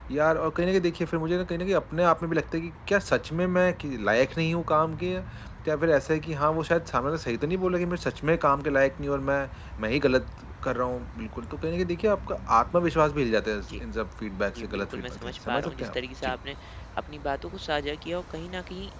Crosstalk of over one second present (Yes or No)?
Yes